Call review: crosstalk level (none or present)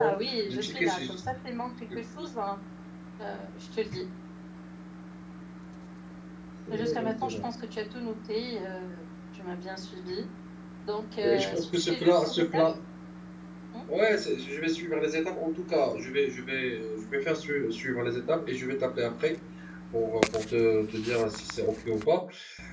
present